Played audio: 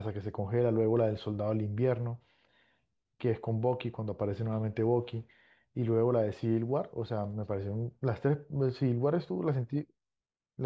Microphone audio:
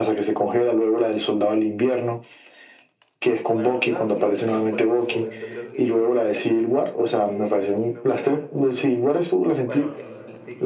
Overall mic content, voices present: both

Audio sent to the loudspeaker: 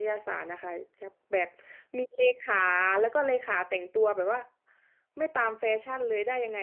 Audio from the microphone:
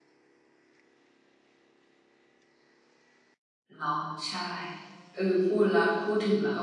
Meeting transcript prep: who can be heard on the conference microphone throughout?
user only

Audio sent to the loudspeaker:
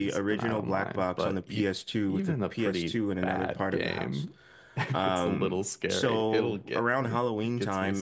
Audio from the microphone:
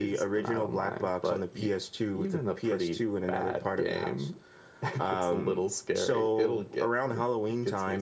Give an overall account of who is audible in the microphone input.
echo only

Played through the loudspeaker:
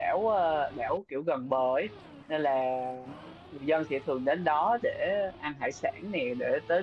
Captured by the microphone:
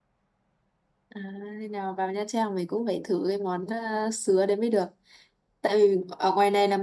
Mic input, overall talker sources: user only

